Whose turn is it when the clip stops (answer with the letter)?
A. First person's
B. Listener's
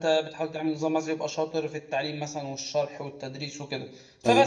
A